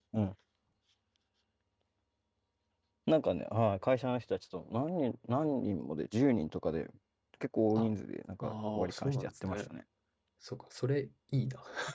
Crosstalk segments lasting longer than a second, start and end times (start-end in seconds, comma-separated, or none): 8.4-9.7